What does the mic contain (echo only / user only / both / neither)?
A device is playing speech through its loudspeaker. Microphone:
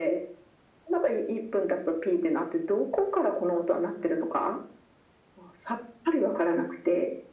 echo only